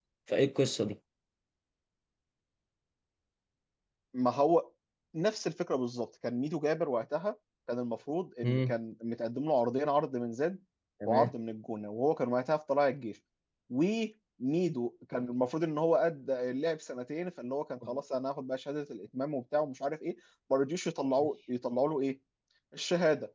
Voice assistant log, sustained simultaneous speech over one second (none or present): none